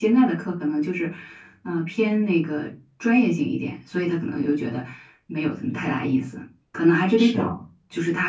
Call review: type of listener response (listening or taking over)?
listening